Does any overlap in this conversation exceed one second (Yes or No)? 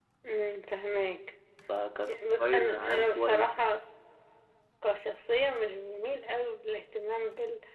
Yes